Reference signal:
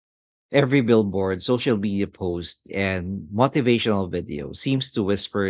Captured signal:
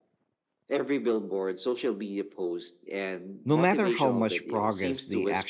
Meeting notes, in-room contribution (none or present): present